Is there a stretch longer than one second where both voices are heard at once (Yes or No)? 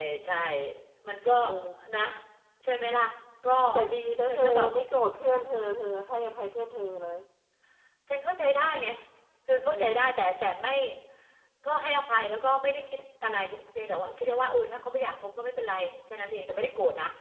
No